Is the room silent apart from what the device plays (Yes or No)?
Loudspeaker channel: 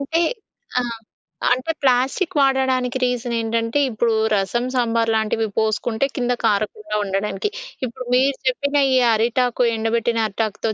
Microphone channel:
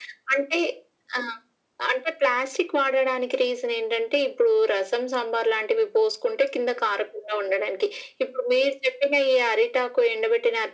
Yes